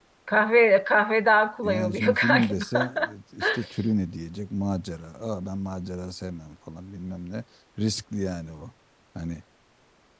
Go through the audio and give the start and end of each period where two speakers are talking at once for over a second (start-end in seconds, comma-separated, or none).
1.6-2.9